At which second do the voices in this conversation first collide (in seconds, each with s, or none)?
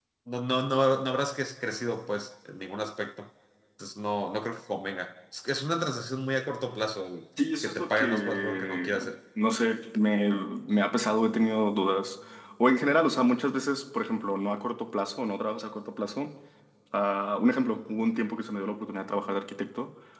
7.6 s